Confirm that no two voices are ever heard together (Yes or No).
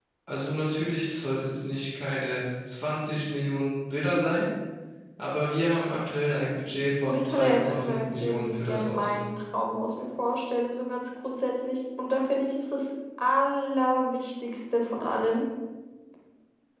No